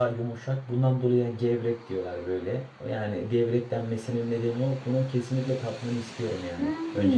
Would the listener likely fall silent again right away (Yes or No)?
No